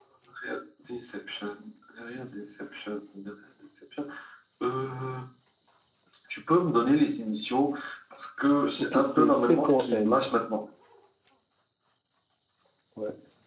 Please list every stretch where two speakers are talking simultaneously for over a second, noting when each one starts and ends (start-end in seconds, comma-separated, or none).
8.9-10.3